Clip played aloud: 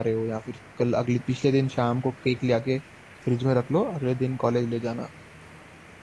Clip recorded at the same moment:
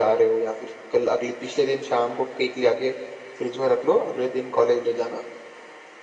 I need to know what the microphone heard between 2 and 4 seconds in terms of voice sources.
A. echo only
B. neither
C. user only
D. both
A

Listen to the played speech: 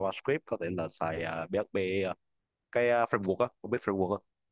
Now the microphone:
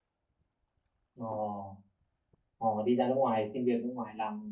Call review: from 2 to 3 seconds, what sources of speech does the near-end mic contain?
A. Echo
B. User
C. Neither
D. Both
B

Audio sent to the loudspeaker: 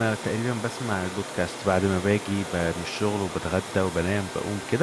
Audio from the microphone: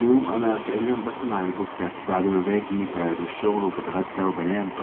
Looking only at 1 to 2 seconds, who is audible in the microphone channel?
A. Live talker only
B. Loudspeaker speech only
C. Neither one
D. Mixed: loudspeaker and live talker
B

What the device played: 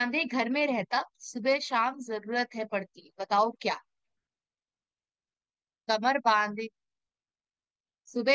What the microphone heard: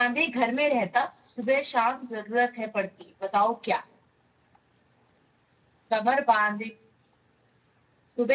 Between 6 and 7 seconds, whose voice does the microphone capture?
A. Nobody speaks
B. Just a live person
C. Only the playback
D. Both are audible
C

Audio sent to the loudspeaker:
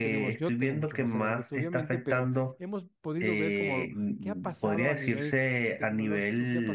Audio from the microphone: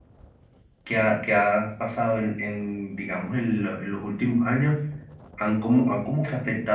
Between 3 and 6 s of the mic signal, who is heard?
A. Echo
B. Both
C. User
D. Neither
C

